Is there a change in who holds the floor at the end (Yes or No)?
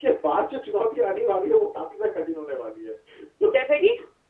No